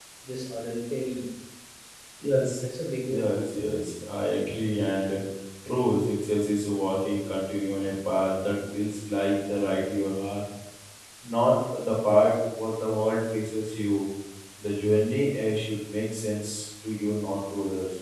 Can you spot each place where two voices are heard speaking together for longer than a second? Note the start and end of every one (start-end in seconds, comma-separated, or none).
none